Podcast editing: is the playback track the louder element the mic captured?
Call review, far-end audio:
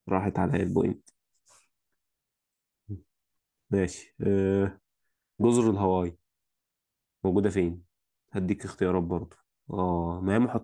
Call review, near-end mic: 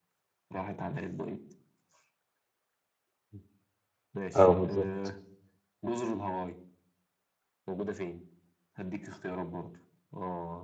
No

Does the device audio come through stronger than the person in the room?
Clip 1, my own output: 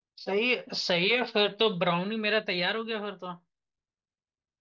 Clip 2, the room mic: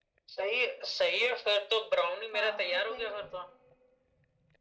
Yes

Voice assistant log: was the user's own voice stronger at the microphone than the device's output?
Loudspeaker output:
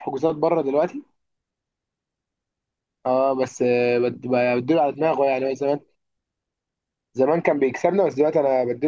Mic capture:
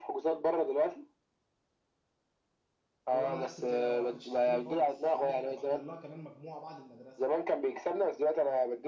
No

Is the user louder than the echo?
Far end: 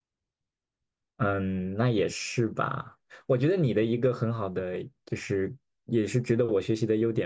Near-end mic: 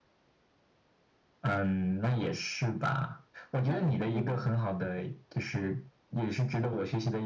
No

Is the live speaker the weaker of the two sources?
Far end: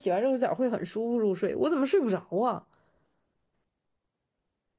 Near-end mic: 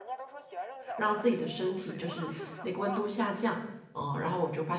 No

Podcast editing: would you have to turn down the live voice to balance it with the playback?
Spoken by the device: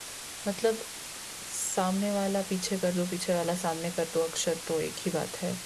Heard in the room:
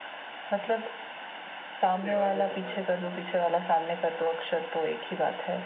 No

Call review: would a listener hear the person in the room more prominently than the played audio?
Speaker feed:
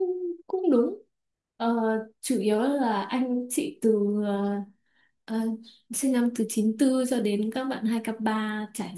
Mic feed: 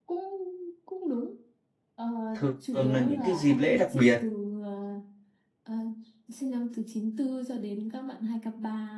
Yes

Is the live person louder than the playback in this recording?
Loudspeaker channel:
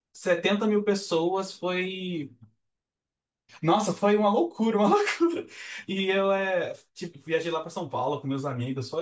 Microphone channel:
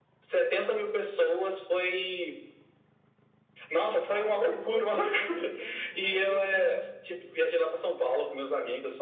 No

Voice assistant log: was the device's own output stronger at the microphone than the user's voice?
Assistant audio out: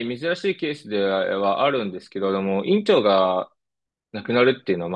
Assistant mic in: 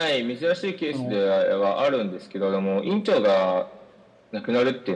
Yes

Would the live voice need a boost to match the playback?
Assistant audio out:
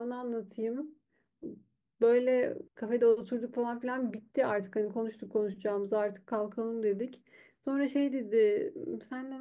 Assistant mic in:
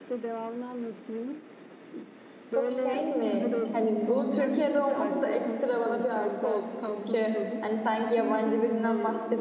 No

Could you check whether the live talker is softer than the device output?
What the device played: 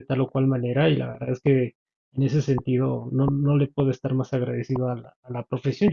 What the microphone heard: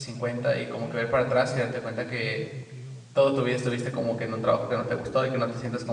No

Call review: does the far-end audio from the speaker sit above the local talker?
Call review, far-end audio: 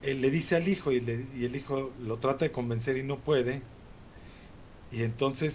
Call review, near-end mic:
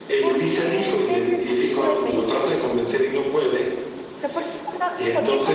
Yes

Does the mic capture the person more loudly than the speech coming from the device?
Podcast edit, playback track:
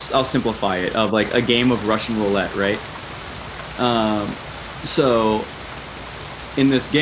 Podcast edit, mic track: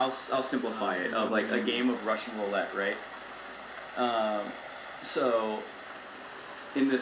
No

